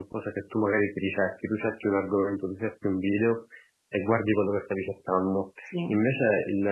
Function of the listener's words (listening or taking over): listening